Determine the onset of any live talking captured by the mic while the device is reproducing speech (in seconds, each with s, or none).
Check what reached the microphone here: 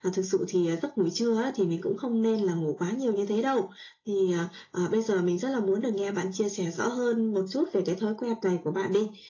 none